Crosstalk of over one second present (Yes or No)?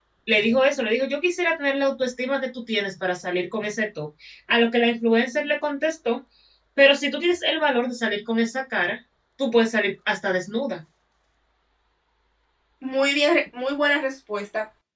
No